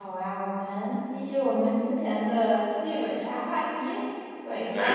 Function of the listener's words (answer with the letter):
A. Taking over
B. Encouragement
A